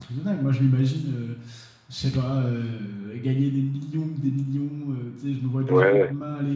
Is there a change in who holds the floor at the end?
No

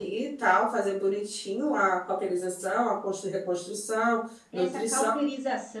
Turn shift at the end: Yes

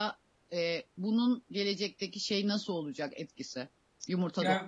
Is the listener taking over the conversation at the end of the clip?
Yes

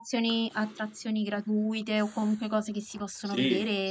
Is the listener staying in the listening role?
No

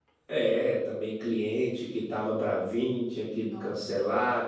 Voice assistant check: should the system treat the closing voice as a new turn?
No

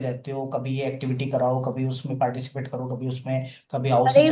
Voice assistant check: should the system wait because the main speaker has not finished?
No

